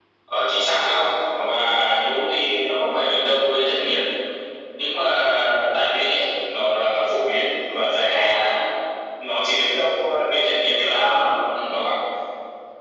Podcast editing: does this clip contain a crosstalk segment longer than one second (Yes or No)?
No